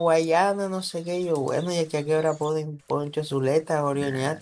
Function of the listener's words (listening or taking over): taking over